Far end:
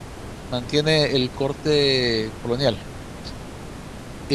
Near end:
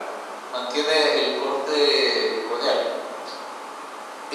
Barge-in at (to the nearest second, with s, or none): none